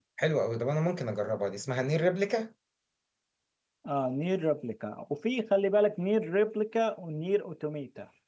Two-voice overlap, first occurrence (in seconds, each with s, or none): none